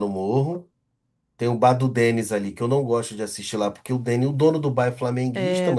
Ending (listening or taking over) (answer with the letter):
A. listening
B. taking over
B